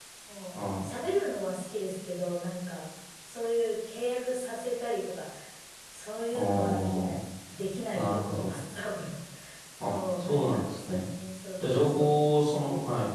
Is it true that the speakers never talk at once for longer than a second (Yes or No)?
No